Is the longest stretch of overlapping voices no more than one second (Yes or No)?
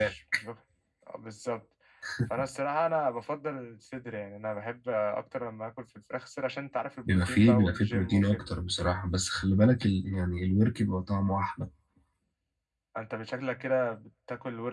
No